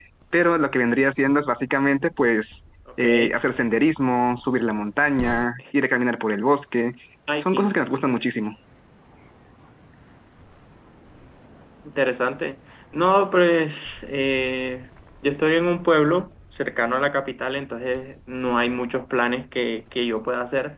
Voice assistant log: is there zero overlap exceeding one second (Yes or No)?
Yes